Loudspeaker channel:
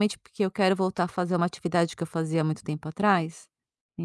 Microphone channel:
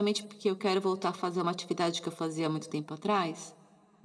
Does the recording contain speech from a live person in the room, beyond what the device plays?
No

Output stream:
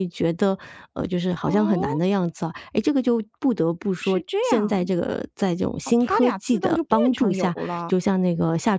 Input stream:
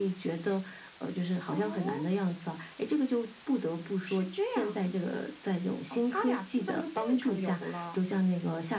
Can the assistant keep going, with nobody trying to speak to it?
Yes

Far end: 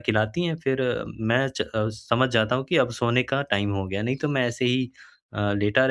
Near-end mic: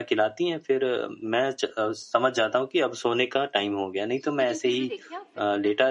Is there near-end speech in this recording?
Yes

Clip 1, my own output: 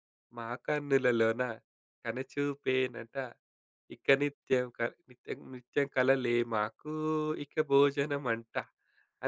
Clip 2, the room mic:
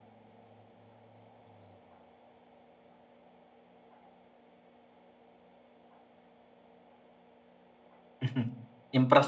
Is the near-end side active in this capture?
Yes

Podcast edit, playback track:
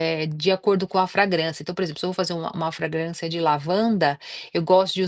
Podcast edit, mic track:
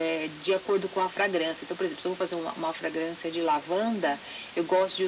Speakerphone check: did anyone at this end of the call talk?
No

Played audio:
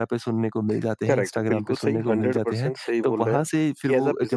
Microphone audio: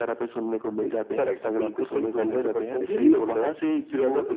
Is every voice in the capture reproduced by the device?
No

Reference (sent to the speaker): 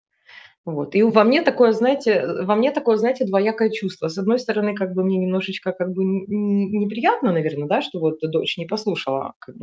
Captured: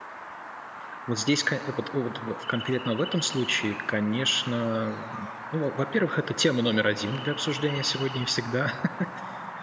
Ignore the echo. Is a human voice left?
Yes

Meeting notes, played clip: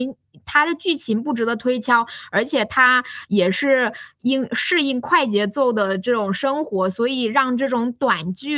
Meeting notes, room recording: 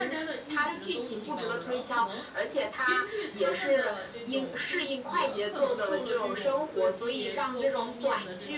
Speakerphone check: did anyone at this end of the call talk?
Yes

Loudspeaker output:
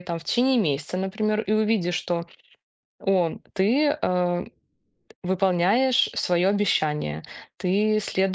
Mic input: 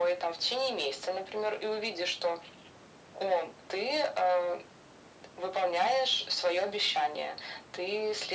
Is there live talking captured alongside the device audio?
No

